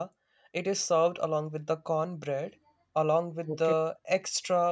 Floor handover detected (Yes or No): No